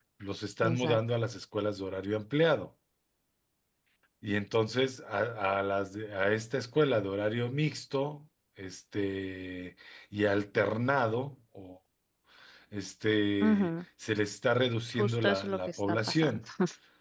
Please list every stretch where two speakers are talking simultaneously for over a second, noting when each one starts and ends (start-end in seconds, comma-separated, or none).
15.0-16.4